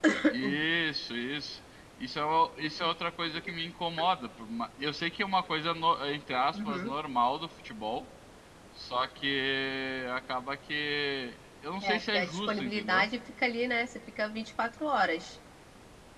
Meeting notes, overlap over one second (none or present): present